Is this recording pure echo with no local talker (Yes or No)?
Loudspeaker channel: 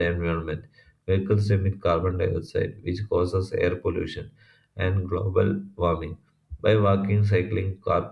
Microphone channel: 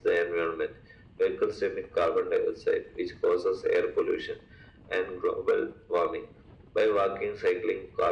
Yes